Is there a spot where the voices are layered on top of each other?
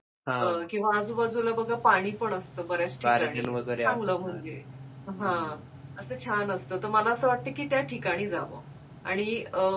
Yes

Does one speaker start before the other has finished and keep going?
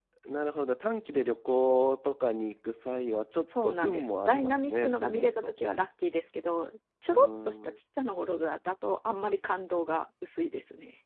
Yes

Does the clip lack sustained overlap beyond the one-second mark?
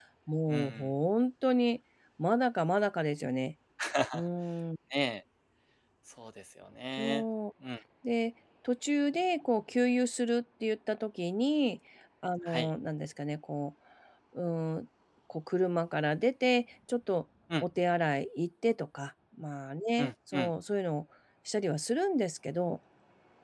Yes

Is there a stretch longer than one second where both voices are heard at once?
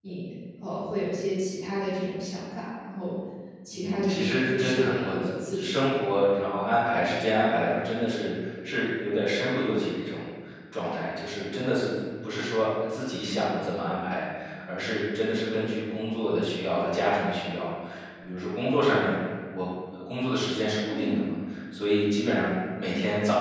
Yes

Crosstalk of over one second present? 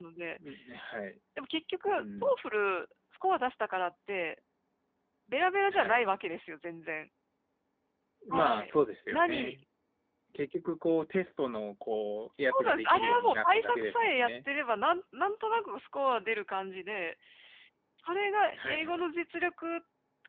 Yes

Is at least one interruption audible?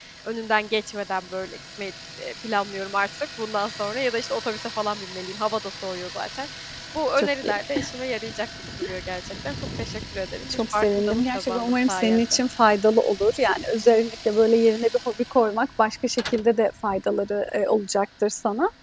Yes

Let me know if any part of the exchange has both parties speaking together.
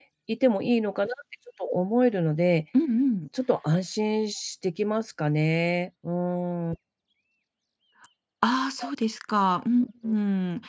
No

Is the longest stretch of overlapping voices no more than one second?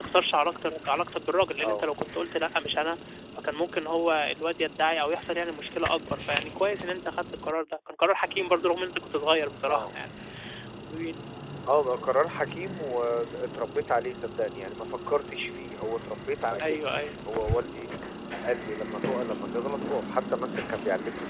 Yes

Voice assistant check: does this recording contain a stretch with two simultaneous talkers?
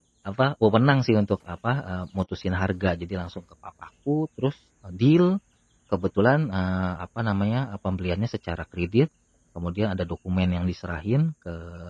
No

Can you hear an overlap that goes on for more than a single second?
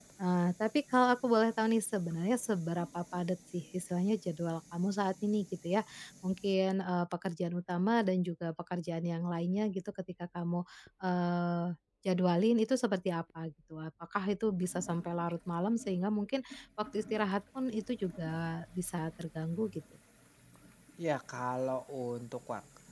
No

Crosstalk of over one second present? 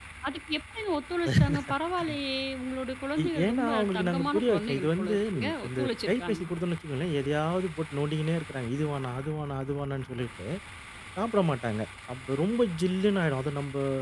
Yes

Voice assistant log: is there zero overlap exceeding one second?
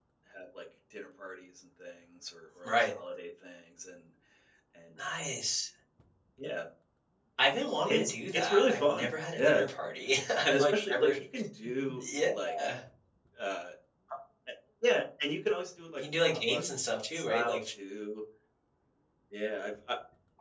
No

